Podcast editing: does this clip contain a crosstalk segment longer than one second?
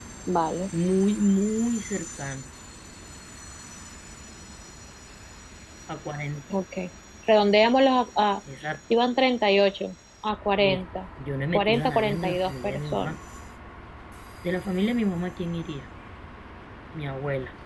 Yes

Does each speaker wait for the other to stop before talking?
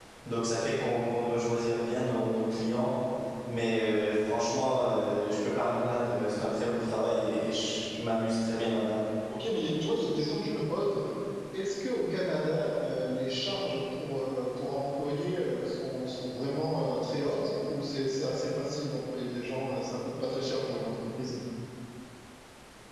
Yes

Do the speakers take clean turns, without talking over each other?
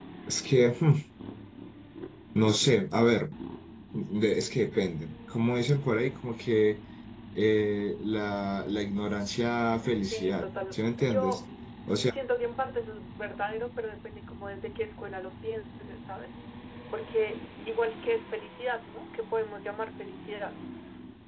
No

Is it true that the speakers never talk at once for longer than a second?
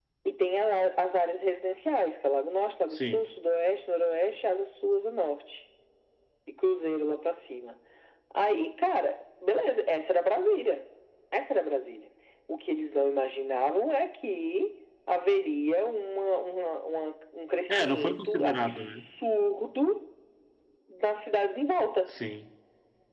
No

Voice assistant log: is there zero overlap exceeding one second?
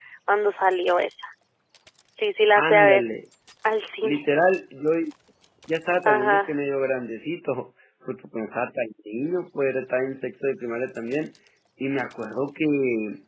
Yes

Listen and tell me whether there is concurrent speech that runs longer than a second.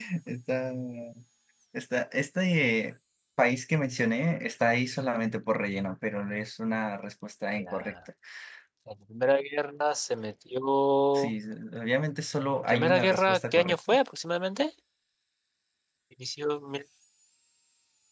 Yes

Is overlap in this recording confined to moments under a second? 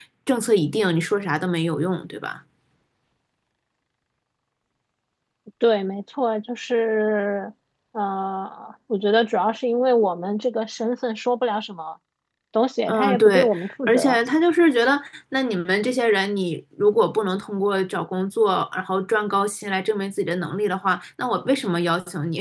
No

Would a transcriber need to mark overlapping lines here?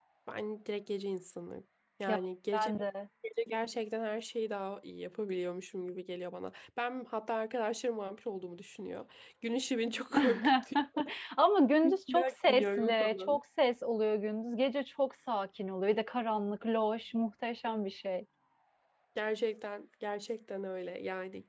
Yes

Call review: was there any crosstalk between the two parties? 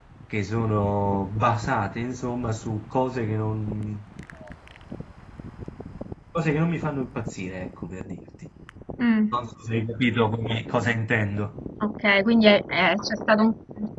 No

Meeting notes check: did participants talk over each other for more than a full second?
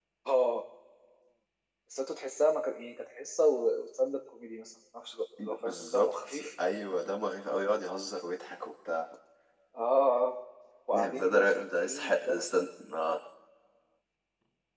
Yes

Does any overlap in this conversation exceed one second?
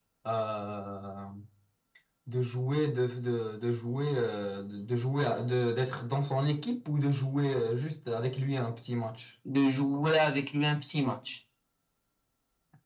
No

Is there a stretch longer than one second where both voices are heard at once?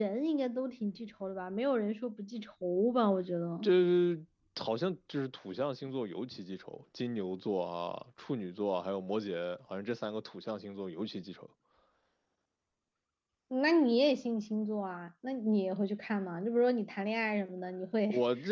No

